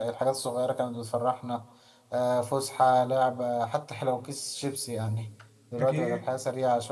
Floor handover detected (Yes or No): No